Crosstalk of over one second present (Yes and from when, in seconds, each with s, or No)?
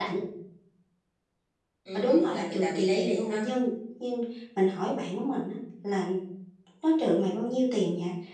Yes, from 1.9 s